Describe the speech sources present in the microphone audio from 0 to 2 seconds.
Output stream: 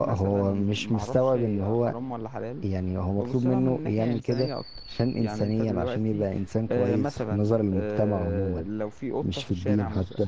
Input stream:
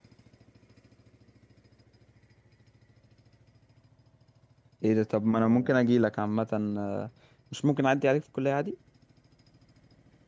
neither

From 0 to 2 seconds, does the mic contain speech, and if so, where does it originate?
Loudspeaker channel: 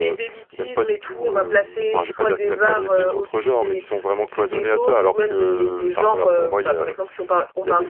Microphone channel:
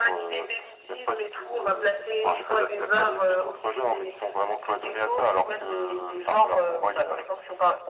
echo only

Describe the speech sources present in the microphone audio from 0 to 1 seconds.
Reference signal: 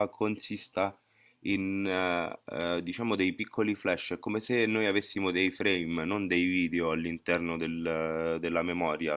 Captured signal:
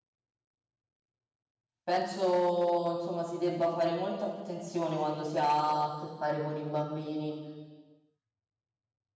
neither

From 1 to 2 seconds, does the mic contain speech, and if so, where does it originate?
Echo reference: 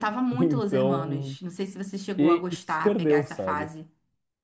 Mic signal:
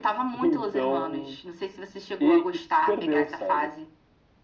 echo only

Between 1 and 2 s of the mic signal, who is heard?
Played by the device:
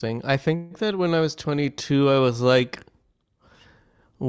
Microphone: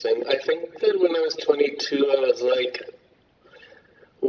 echo only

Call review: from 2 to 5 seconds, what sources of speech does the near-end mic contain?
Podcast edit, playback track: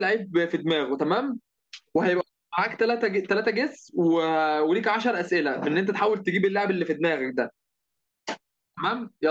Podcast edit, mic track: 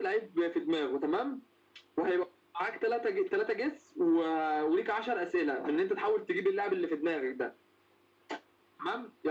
echo only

